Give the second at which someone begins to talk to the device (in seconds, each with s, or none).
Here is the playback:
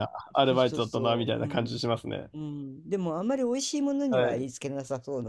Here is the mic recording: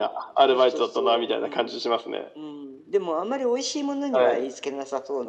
none